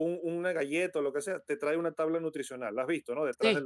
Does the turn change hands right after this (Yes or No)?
Yes